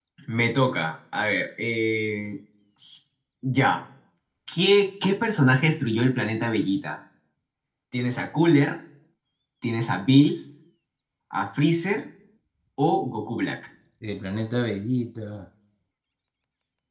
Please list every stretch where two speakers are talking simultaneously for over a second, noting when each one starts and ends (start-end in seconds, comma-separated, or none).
none